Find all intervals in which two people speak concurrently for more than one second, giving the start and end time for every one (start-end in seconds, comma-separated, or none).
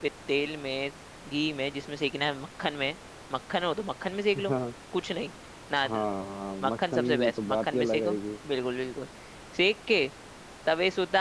6.7-8.1